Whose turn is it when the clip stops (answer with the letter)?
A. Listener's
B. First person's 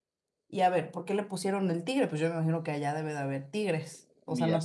A